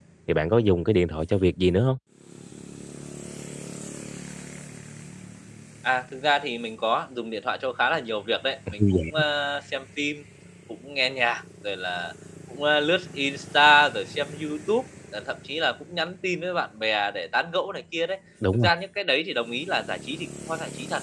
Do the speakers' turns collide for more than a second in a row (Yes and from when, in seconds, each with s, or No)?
No